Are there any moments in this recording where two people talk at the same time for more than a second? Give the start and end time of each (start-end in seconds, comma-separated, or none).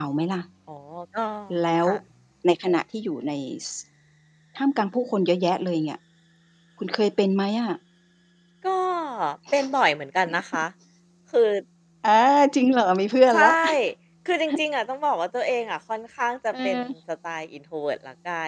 none